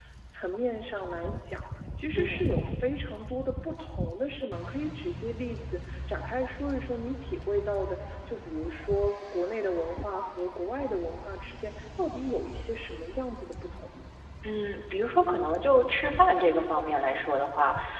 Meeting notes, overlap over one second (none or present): none